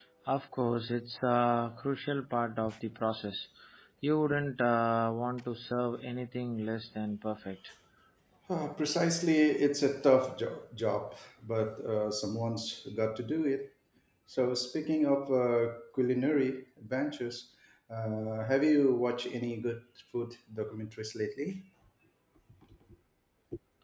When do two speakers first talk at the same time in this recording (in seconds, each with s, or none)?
none